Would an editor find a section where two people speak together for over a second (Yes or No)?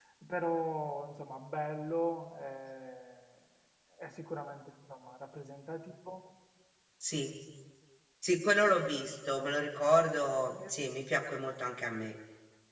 No